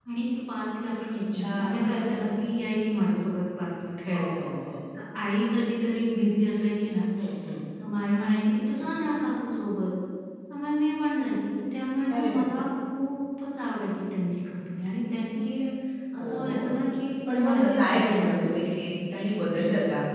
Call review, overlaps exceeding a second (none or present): present